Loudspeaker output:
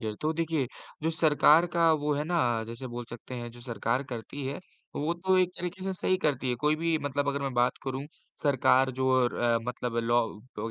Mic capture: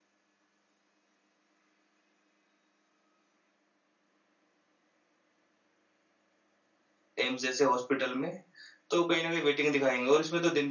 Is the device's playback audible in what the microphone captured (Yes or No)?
No